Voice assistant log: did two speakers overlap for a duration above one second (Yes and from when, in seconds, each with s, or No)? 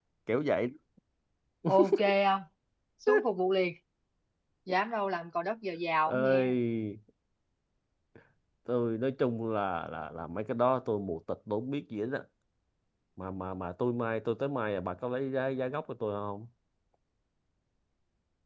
No